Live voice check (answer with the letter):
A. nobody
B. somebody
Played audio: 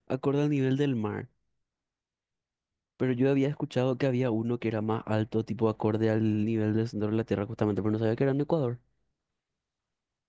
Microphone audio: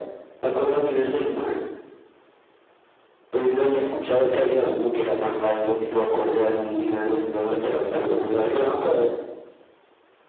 B